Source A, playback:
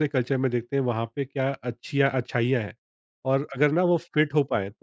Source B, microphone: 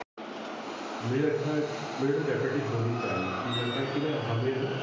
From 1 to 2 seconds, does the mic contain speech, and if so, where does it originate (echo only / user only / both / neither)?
user only